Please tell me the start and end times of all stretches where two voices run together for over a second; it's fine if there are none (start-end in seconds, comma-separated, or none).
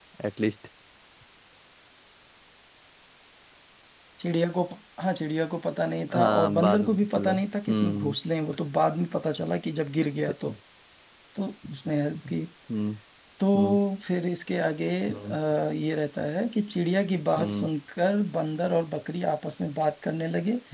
6.1-7.3